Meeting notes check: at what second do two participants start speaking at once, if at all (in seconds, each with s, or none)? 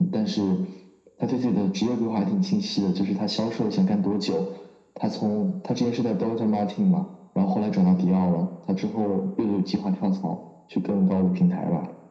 none